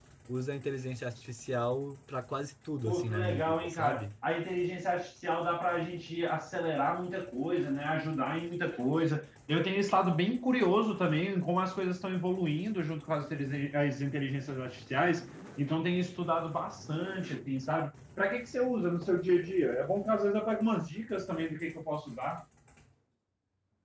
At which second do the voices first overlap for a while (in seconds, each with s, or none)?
2.9 s